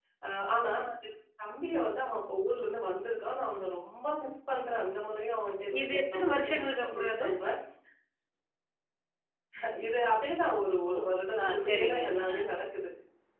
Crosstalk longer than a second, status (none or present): present